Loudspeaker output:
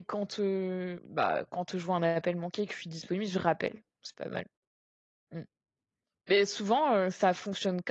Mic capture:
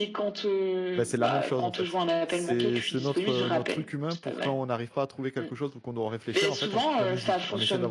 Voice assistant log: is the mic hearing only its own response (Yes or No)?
No